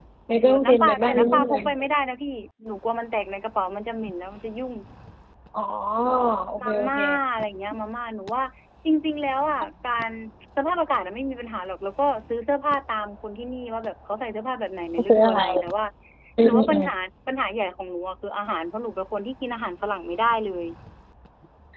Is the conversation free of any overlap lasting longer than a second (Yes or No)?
No